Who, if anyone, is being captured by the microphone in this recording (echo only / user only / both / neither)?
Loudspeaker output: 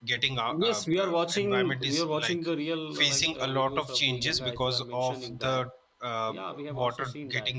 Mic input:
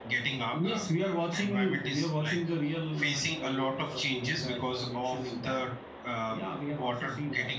echo only